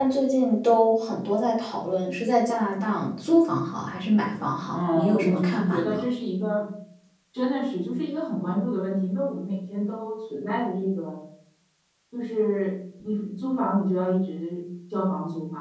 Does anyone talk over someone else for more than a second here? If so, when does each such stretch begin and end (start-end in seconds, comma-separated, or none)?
4.7-6.0